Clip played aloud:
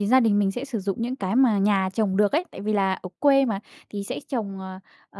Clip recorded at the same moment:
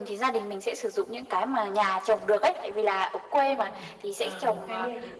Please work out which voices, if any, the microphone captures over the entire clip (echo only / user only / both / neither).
both